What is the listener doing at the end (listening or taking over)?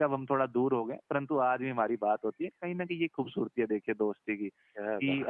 listening